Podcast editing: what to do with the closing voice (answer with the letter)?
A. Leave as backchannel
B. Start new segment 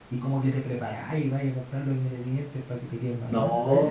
B